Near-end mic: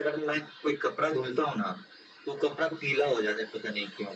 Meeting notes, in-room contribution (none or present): none